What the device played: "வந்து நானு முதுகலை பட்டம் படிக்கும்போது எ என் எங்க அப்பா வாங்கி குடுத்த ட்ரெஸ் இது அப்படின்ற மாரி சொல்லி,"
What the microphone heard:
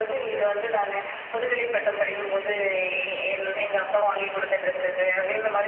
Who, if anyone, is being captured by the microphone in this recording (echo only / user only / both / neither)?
echo only